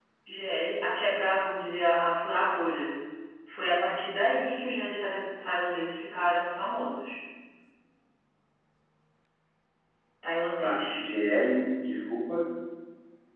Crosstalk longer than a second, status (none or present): none